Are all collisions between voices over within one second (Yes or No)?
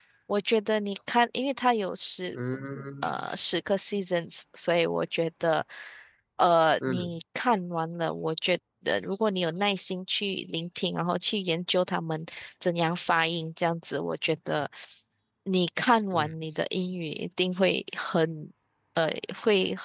Yes